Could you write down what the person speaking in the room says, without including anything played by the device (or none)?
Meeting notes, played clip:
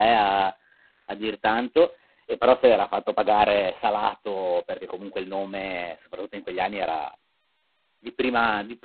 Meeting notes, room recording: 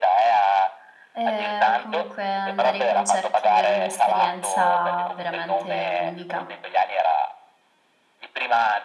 Ehm, comunque andare ai concerti è un'esperienza veramente unica.